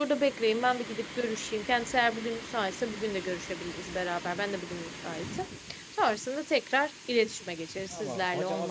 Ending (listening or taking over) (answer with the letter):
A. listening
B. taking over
B